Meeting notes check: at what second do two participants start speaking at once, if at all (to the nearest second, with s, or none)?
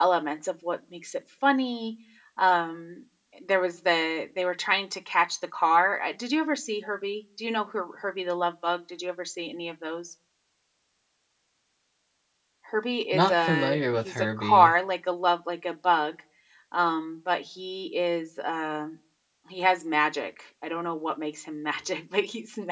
13 s